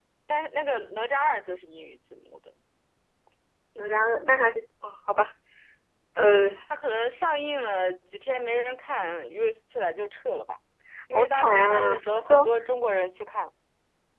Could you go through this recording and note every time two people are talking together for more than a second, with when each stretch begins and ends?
11.1-12.5

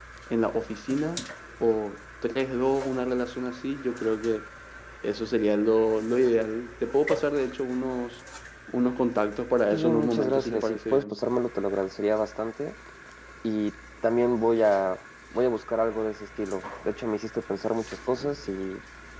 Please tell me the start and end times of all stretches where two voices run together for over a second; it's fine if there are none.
9.7-11.2

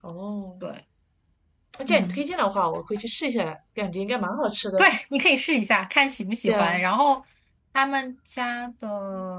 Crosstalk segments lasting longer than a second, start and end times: none

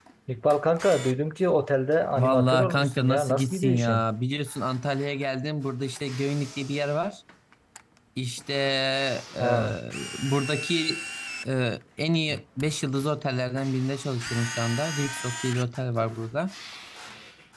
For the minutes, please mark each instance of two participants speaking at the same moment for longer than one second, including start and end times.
2.2-4.0

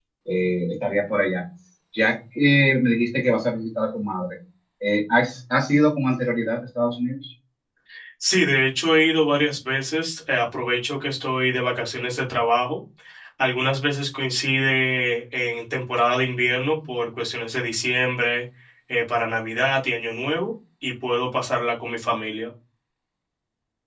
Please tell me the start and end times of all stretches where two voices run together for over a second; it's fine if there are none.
none

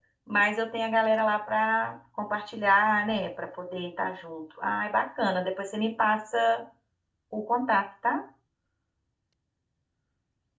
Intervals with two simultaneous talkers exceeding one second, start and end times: none

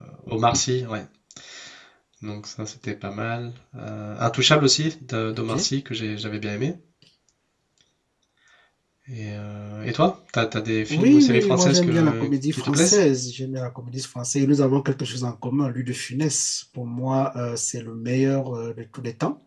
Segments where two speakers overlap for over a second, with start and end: 10.9-13.0

